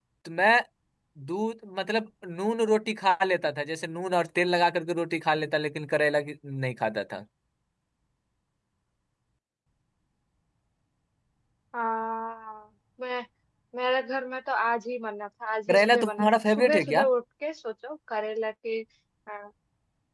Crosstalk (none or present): present